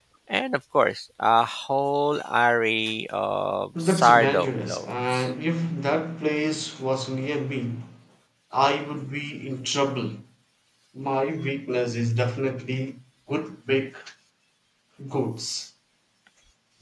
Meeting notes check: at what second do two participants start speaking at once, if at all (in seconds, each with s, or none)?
3.8 s